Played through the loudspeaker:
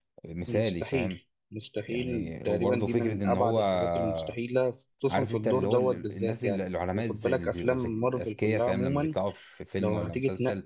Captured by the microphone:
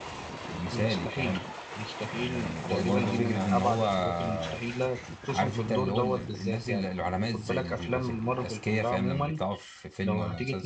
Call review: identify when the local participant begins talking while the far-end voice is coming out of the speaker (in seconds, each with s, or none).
2.6 s